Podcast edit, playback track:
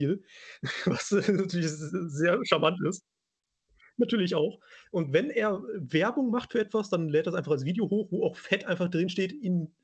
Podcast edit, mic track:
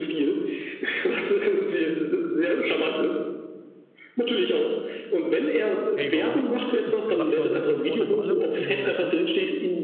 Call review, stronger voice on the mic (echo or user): echo